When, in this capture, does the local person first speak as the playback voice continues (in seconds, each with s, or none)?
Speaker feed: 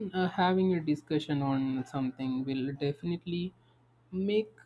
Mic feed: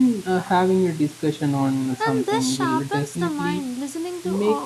2.0 s